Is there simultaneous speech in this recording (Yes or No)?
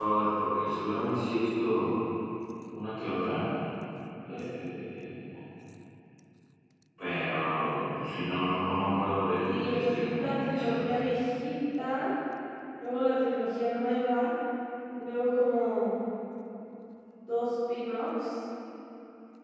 Yes